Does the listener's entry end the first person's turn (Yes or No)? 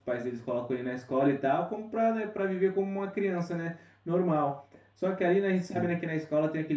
No